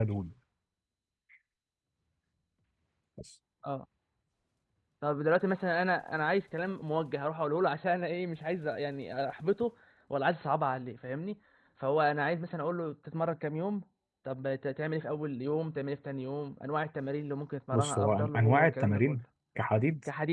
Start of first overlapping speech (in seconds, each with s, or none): 17.7 s